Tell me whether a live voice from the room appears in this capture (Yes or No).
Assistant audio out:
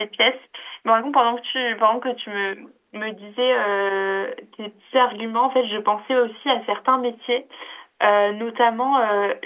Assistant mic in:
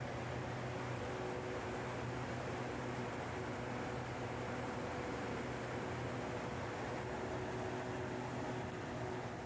No